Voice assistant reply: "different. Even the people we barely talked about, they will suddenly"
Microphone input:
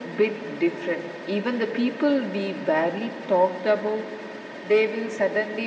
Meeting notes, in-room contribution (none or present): none